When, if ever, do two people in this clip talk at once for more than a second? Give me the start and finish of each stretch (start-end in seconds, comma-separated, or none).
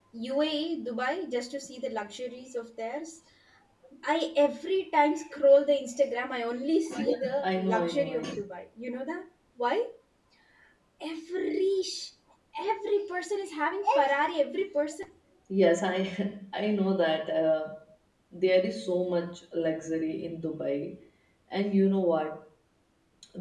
6.9-8.4